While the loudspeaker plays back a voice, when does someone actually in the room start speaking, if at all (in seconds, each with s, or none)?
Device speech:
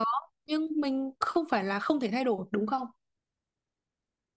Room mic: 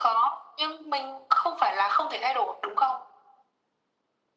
none